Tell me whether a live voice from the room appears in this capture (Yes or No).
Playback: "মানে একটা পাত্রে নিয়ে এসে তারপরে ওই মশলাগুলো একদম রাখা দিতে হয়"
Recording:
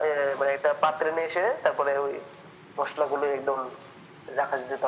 No